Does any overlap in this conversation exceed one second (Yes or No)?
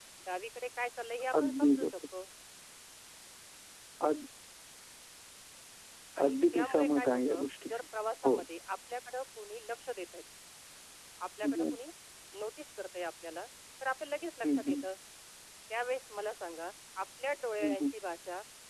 Yes